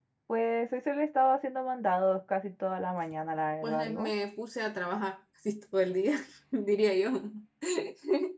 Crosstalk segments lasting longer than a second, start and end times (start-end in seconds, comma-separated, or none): none